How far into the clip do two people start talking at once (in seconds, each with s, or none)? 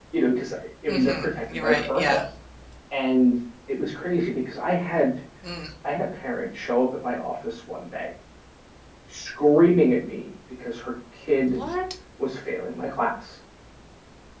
0.9 s